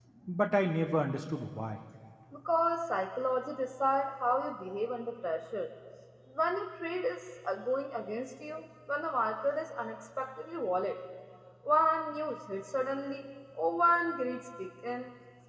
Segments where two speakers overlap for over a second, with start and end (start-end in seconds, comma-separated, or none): none